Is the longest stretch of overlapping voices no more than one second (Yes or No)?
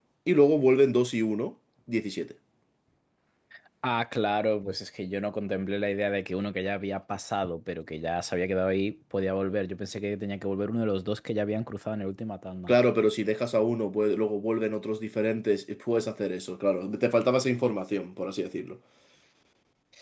Yes